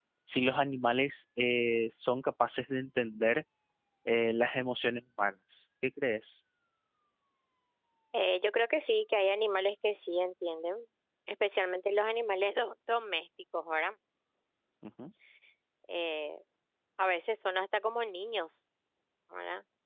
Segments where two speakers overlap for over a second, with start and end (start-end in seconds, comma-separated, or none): none